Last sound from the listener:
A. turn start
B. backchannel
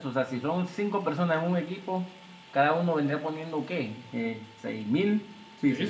A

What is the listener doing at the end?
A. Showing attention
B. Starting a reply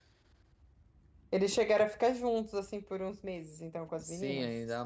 B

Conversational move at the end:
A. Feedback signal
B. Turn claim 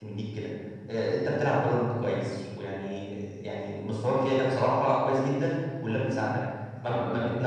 A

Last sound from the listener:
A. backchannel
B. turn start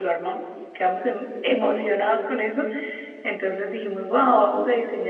A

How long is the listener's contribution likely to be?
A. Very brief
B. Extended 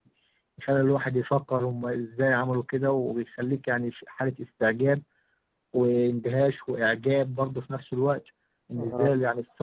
A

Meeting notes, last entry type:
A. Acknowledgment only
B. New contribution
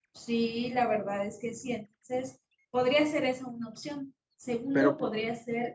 A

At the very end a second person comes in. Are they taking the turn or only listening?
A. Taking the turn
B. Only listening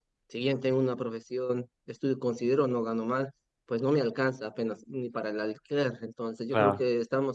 B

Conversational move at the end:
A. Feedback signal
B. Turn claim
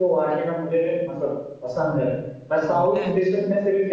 A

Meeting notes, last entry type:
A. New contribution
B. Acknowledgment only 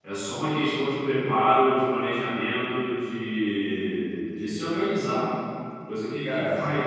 A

